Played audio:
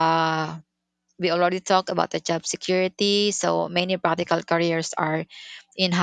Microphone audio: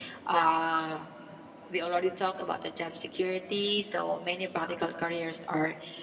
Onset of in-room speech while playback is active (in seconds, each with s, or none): none